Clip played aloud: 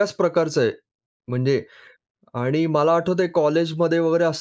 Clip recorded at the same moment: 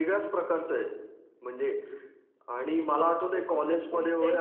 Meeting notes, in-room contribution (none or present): present